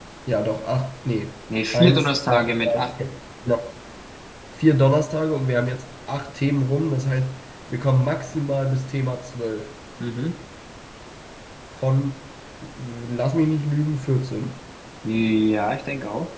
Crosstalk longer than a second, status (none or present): present